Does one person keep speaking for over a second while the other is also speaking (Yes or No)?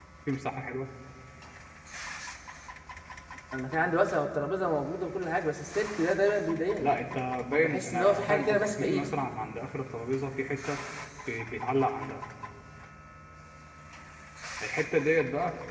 Yes